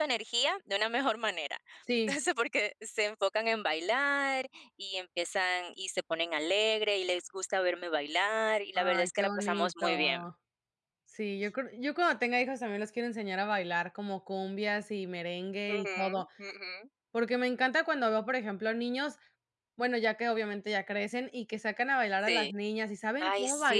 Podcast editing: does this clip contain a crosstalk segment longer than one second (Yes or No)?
Yes